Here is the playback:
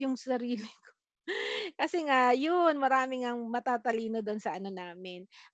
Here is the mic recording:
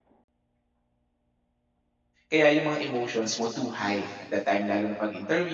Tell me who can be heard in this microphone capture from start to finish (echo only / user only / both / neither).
user only